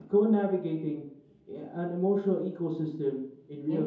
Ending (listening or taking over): taking over